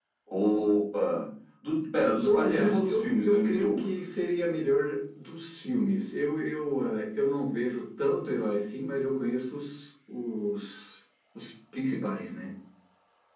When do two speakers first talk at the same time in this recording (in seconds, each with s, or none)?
2.2 s